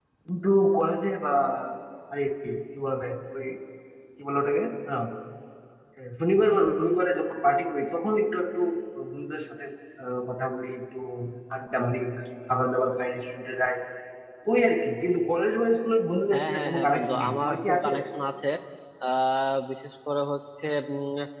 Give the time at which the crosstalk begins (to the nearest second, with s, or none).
16 s